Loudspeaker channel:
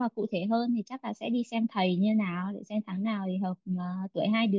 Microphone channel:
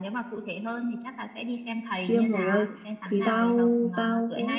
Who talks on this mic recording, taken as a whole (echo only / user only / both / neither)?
both